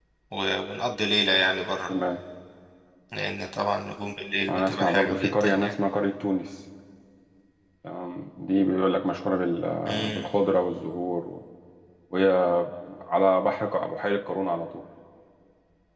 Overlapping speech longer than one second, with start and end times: 4.5-5.7

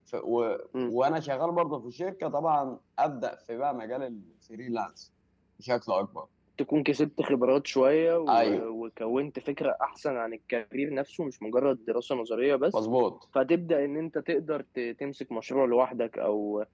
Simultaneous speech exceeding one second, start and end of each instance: none

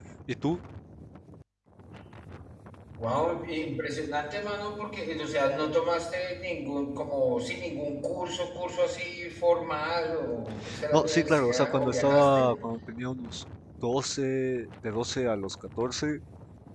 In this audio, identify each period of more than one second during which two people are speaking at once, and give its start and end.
10.9-12.5

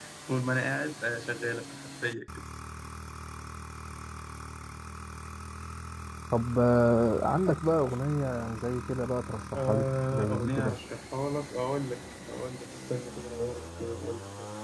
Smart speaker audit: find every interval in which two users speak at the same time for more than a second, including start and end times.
9.6-10.8

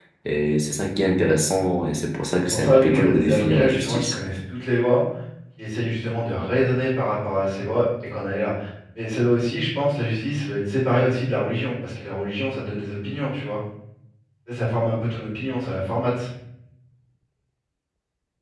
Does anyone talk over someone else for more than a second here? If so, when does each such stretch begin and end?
2.5-4.2

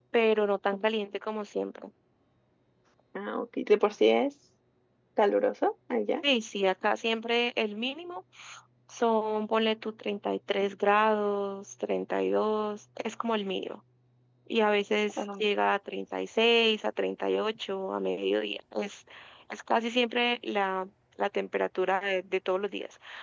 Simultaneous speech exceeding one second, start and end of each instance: none

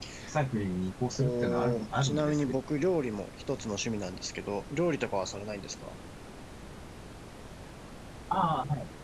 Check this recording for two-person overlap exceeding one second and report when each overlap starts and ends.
1.2-2.5

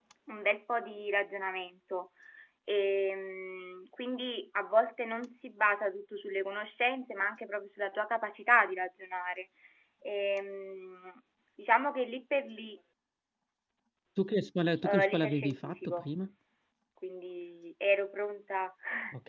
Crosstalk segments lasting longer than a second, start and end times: 14.8-16.1

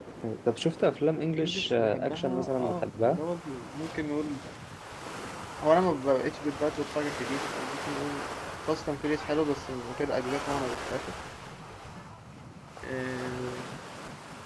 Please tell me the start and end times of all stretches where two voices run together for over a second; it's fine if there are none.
1.4-3.2

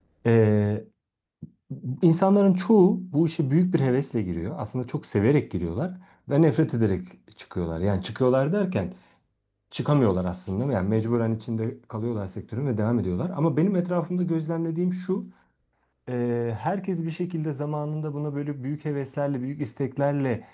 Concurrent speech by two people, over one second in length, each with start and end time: none

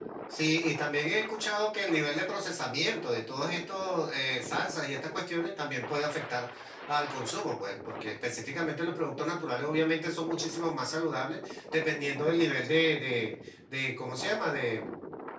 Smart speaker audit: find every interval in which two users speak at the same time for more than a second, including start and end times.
none

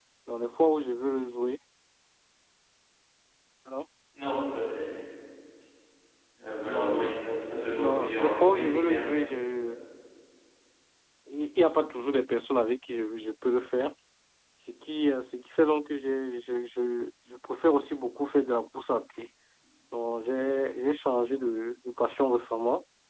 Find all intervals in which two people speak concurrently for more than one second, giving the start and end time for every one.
7.8-9.1

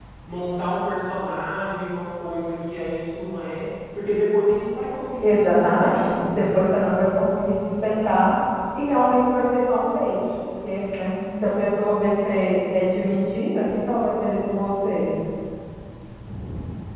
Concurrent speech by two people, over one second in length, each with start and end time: 5.2-6.5

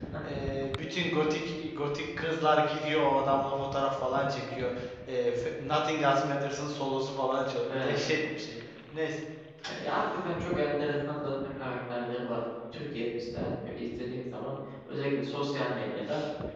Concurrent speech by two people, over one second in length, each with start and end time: none

